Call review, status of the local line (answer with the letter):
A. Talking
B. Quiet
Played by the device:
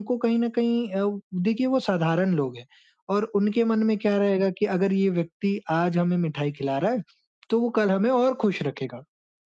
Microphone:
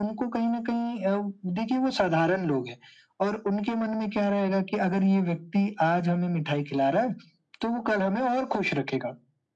B